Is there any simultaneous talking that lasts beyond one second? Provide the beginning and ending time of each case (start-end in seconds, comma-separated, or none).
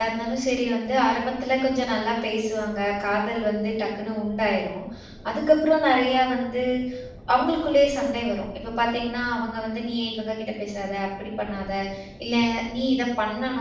none